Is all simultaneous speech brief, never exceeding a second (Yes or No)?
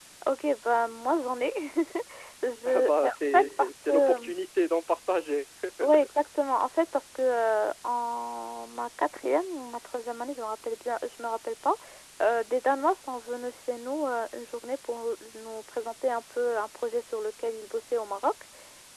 No